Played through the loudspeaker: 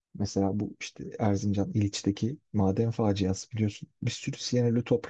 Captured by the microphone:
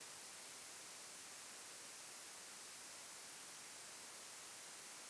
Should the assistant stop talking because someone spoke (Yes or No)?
No